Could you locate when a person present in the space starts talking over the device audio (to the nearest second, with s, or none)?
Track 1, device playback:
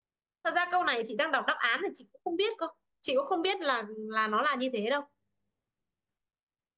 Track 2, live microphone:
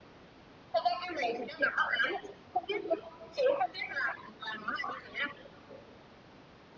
none